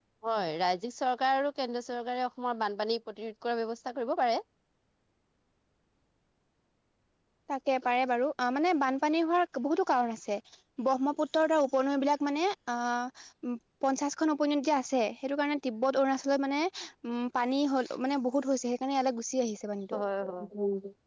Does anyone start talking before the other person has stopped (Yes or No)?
No